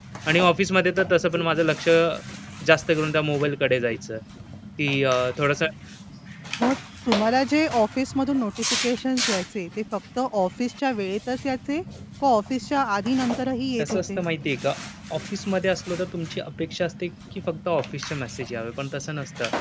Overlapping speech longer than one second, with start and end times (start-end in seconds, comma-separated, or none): none